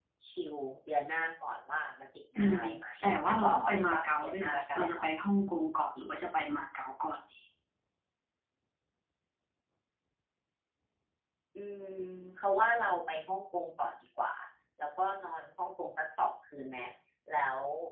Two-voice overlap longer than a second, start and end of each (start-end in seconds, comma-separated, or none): 3.3-5.1